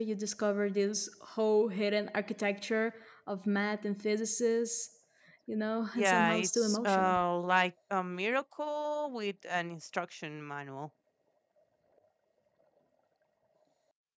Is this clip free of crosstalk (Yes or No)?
No